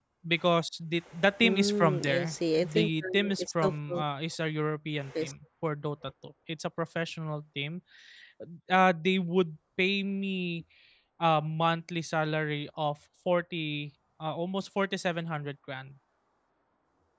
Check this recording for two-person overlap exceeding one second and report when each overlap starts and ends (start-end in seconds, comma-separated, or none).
1.4-4.0